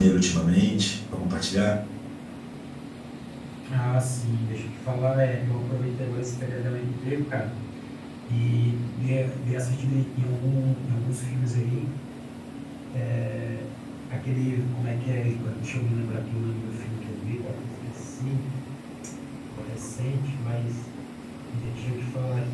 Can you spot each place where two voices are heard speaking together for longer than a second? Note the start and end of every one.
none

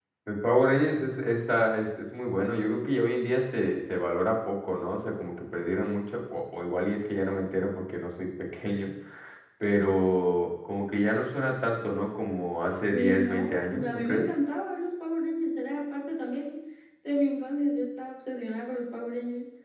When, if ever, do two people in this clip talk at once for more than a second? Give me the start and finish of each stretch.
12.9-14.2

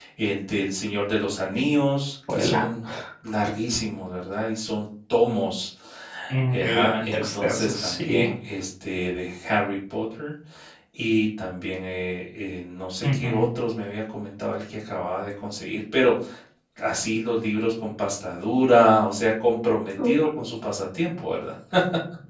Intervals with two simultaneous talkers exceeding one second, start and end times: 6.5-8.2

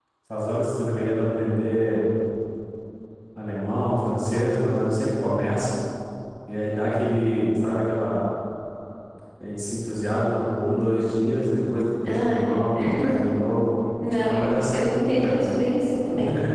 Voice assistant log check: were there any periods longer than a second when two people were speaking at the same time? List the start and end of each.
14.1-15.5

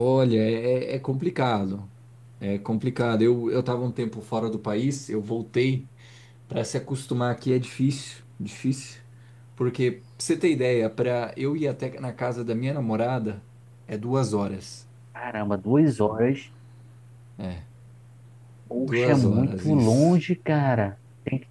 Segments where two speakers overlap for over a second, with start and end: 18.8-20.1

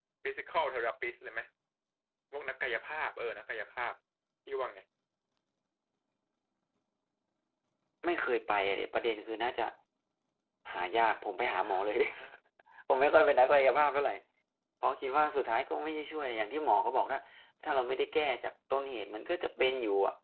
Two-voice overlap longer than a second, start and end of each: none

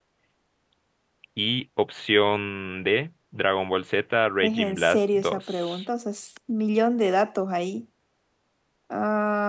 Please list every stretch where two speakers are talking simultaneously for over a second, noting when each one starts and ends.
4.4-5.8

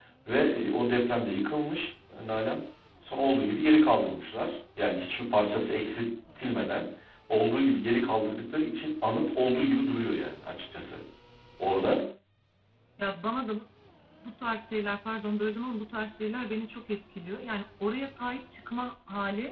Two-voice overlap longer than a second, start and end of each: none

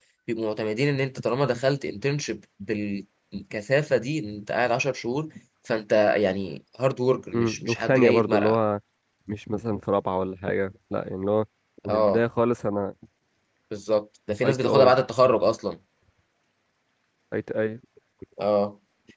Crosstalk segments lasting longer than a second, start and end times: 7.3-8.6

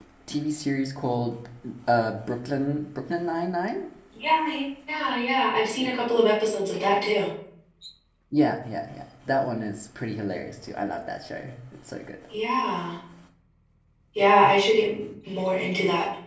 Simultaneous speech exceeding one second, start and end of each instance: none

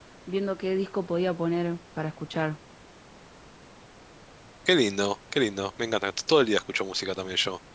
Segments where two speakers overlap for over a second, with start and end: none

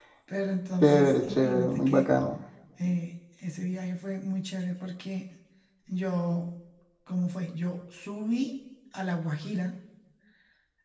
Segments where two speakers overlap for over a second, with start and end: 0.8-2.1

